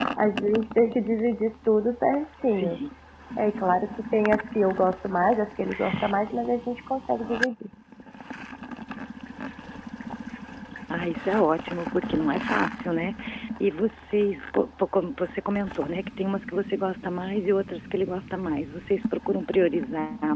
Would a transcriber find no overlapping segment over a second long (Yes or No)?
Yes